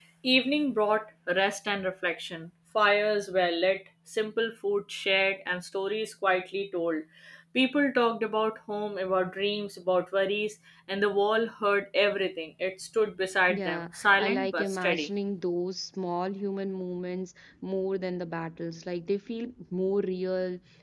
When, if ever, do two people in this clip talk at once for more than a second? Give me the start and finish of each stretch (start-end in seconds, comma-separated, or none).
13.5-15.1